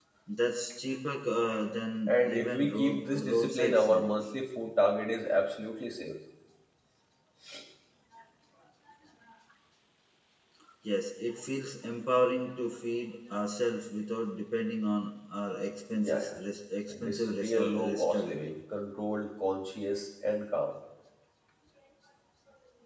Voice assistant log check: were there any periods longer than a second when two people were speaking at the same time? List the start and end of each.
2.1-4.1, 16.9-18.4

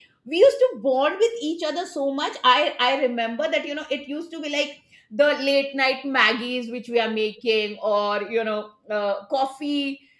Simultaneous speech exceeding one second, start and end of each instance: none

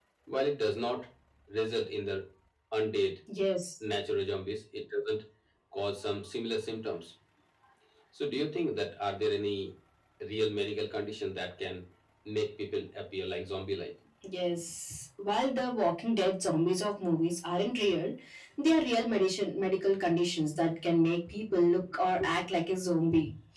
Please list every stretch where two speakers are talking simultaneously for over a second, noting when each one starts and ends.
none

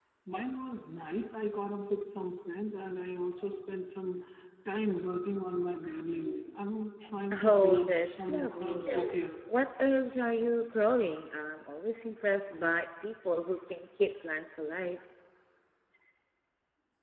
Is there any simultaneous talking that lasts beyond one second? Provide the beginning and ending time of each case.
7.4-9.1

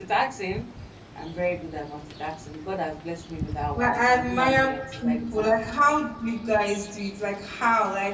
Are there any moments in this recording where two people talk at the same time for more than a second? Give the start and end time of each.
3.7-5.5

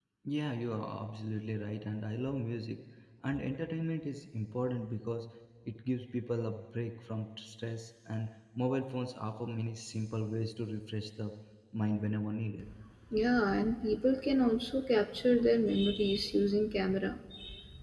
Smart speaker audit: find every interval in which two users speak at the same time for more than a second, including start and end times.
none

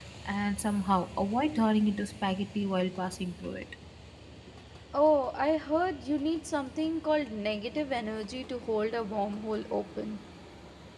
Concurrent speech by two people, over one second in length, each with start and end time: none

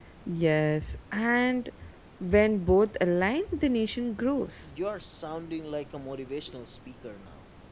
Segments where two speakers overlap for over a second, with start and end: none

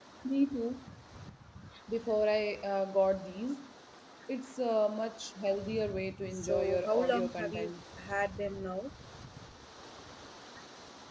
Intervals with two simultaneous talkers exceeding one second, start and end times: 6.3-7.7

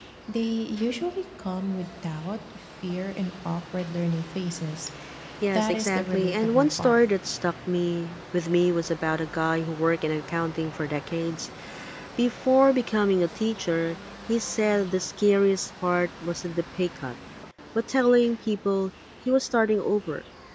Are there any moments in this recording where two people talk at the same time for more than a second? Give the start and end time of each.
5.5-7.0

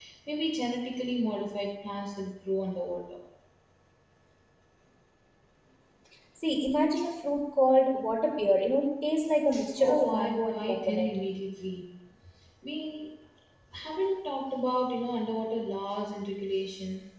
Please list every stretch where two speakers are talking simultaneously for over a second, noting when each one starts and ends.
9.8-11.1

